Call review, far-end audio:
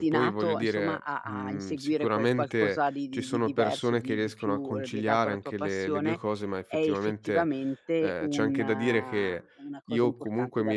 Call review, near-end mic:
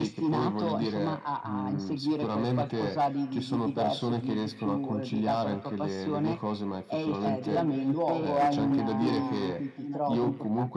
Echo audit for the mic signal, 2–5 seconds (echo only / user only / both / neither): echo only